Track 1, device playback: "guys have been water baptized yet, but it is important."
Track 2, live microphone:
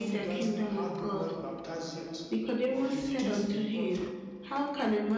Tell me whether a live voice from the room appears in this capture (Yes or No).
Yes